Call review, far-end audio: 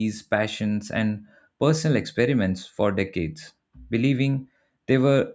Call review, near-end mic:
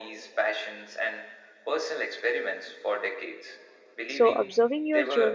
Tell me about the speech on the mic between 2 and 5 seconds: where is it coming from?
both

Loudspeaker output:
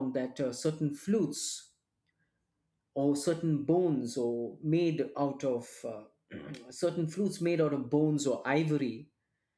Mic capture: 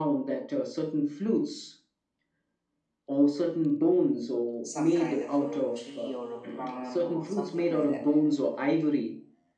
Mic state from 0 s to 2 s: echo only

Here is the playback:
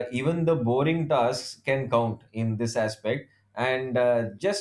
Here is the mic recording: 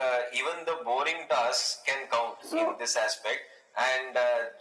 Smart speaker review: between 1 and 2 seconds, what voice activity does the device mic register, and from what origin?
echo only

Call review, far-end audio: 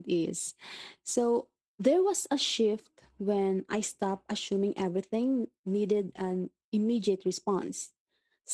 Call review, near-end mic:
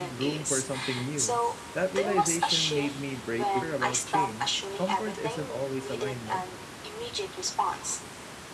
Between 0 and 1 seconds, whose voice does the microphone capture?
both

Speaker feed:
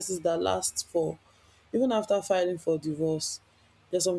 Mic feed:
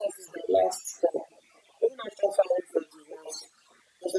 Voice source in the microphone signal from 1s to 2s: echo only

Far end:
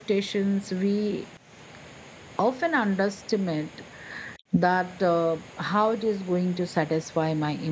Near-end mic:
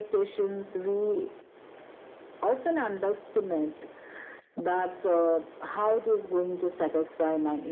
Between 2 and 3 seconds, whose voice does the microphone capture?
echo only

